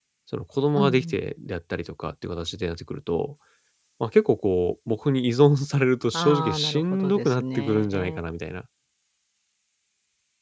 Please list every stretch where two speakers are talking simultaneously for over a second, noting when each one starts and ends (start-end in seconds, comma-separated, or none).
6.1-8.2